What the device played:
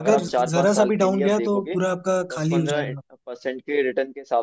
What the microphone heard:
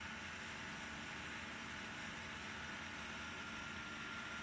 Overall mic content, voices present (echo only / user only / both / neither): neither